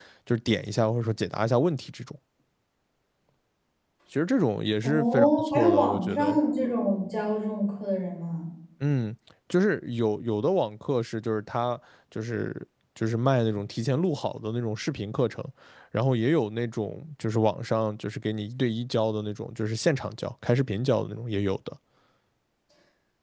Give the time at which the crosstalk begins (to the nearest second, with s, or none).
5 s